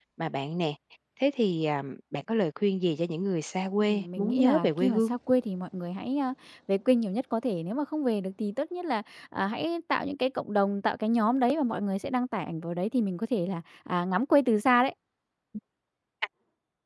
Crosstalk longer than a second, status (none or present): present